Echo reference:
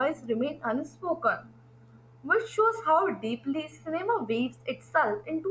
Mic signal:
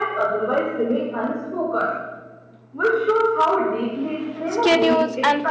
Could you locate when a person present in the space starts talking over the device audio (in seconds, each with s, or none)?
4.5 s